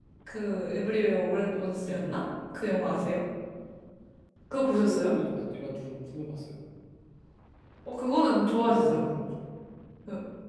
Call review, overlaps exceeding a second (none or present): none